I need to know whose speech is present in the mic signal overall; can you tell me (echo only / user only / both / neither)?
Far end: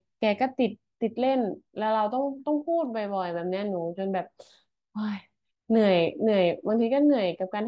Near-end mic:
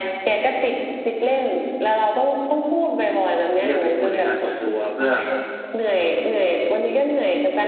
both